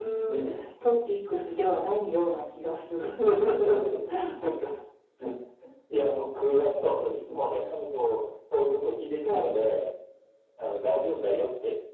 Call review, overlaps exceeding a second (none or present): none